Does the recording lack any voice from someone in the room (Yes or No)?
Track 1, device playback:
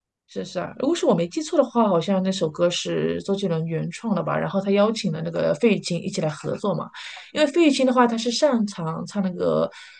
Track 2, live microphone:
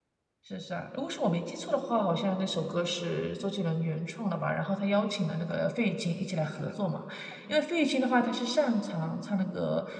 Yes